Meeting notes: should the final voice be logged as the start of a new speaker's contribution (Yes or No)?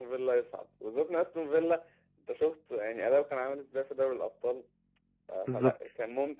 No